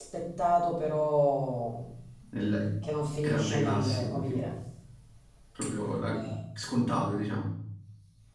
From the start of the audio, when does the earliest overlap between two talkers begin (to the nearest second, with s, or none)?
3 s